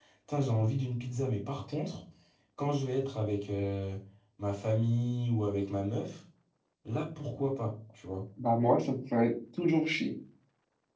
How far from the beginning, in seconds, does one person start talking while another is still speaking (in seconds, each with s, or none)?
none